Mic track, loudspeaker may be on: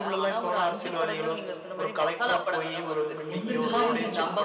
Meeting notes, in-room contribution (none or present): present